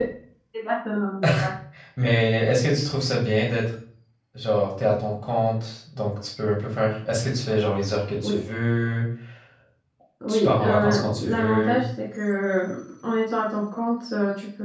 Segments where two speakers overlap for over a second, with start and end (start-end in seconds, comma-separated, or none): 10.3-11.8